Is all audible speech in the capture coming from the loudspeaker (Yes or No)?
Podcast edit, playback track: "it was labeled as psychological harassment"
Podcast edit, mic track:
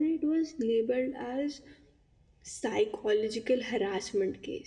Yes